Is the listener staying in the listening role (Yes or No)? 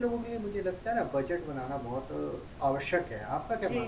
No